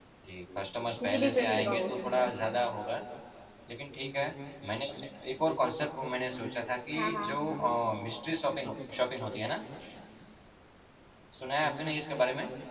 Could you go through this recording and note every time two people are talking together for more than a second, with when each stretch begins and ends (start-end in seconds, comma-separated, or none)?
1.0-2.4